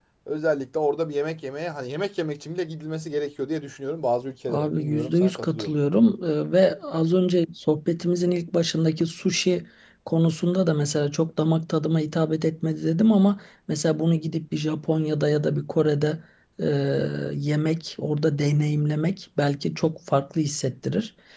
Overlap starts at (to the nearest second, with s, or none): 4 s